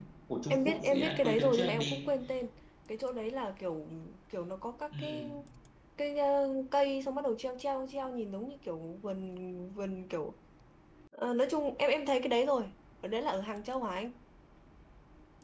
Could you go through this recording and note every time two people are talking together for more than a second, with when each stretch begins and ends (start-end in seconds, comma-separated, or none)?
0.5-2.0